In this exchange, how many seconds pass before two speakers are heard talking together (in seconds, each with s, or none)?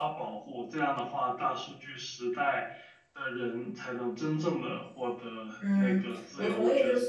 5.6 s